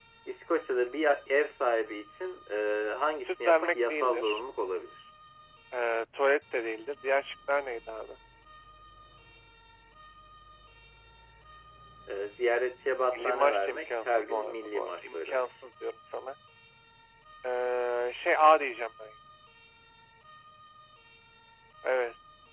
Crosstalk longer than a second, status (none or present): present